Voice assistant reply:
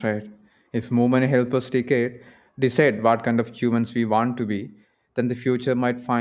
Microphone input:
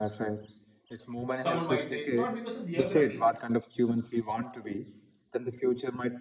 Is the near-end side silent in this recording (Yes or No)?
No